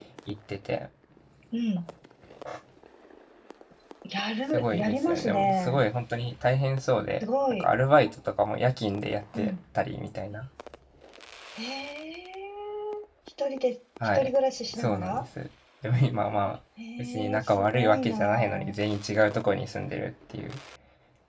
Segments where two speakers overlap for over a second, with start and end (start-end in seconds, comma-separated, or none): 4.5-5.8, 17.0-18.8